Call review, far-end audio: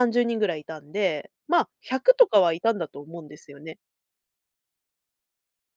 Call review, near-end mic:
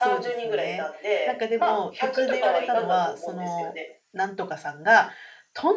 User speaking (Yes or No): Yes